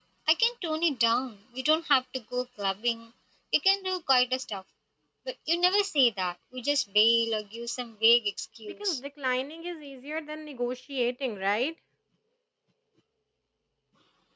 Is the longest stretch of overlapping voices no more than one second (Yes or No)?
Yes